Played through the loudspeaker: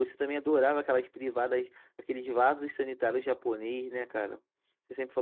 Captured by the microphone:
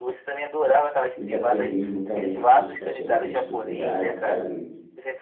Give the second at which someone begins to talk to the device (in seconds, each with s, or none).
1.1 s